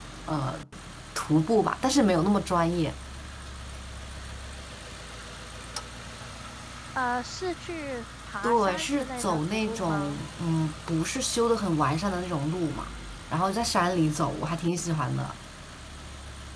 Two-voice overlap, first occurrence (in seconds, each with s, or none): 8.4 s